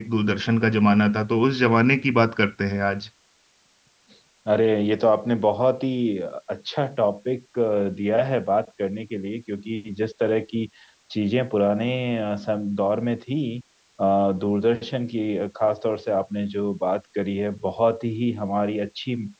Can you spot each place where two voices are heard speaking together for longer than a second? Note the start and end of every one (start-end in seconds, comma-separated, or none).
none